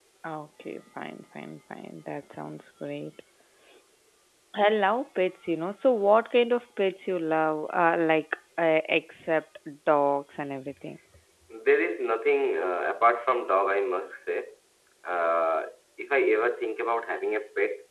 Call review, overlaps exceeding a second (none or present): none